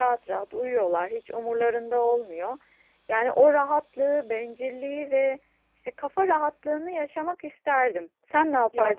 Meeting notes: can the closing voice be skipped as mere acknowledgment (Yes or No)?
No